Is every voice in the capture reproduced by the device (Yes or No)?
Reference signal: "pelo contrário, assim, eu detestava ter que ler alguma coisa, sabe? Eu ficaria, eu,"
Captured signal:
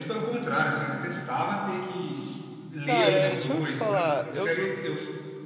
No